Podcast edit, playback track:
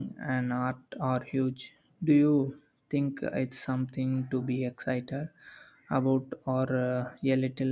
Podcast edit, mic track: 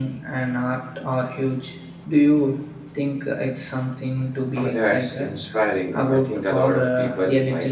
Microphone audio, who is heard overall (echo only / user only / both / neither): both